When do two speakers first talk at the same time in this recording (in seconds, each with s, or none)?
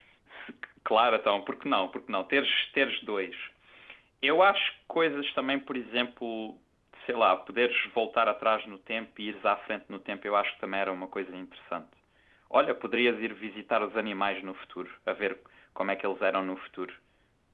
none